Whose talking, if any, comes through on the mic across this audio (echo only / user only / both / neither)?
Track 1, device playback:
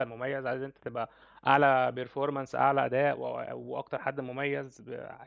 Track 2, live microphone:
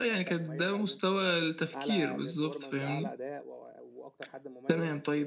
both